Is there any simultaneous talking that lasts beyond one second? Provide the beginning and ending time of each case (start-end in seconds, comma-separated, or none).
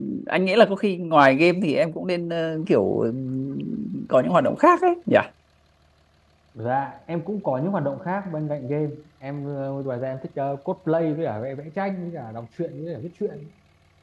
none